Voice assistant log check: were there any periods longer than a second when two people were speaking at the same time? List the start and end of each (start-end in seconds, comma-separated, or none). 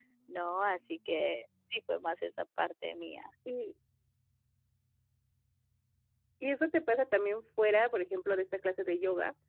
none